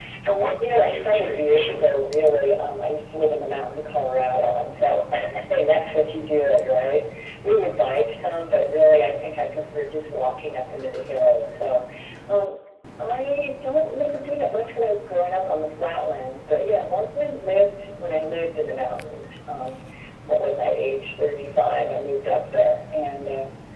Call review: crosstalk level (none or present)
present